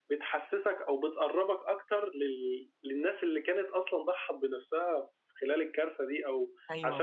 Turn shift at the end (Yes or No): Yes